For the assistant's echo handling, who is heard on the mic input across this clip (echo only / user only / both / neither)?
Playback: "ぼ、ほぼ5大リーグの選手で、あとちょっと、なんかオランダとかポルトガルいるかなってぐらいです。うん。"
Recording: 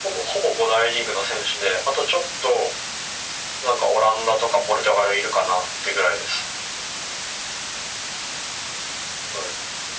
echo only